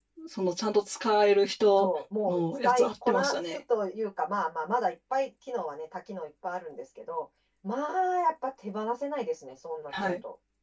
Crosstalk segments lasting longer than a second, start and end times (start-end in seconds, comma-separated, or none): 2.3-3.6